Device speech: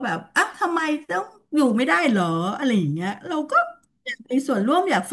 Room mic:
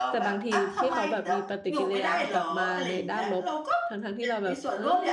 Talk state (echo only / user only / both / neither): both